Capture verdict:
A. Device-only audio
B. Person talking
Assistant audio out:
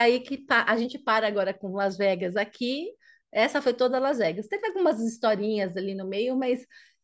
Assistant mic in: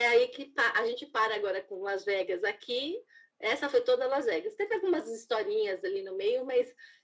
A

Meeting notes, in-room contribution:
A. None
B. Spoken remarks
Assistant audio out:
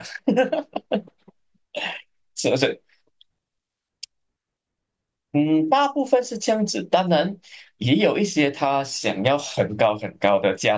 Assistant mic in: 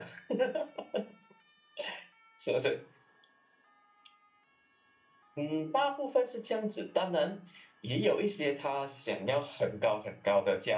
A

